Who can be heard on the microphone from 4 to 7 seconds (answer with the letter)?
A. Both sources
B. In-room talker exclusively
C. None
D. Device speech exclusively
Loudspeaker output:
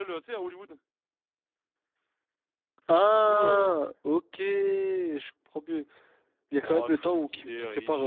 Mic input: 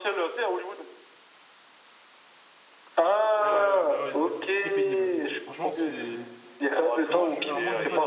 A